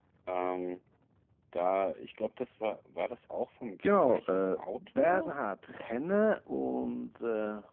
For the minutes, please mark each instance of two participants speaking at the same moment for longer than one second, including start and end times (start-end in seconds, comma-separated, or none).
3.9-5.3